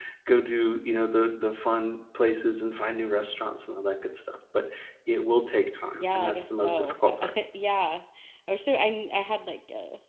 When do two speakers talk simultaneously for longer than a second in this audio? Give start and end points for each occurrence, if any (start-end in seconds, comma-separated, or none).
5.9-7.3